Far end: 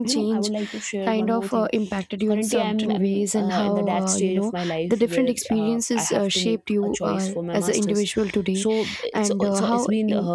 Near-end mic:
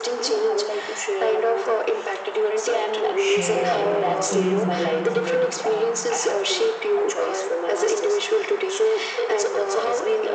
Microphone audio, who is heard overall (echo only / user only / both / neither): both